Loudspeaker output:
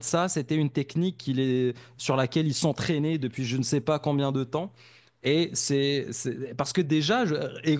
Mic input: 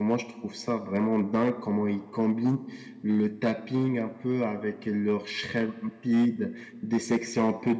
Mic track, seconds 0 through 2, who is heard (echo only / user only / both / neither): user only